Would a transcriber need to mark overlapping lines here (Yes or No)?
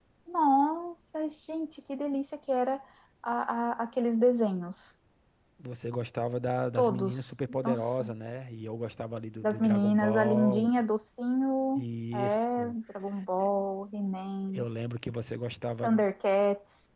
Yes